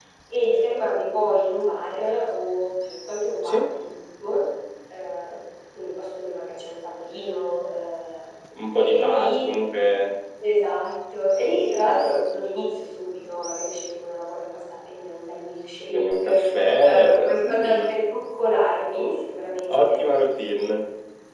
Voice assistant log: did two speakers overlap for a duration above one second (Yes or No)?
Yes